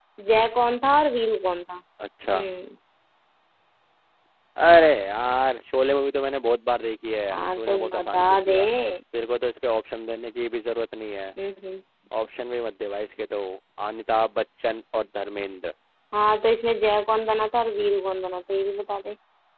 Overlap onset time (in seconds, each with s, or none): 7.3 s